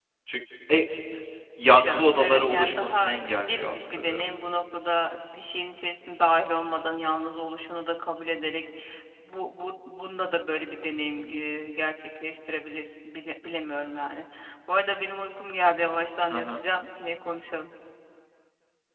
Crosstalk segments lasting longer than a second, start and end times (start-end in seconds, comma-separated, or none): 1.7-4.4